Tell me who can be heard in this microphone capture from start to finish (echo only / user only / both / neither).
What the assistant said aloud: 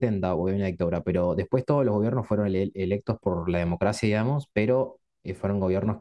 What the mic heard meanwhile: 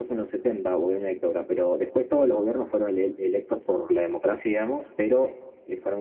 echo only